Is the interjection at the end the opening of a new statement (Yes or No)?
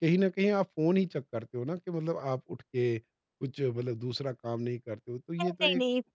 Yes